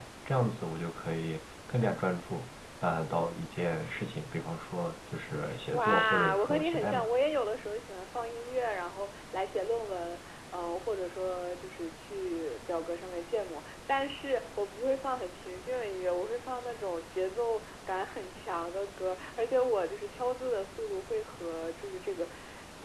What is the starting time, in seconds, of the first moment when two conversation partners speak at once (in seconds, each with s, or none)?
5.5 s